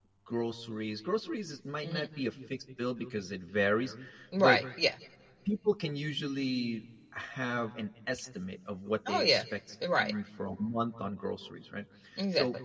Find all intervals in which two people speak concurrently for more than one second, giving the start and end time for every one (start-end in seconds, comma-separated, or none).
none